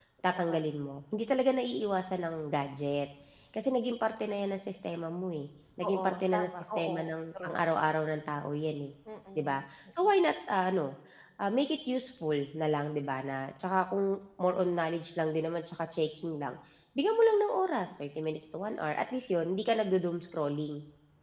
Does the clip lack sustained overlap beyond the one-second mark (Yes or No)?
No